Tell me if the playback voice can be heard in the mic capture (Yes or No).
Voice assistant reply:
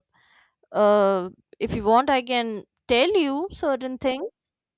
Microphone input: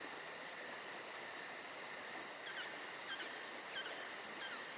No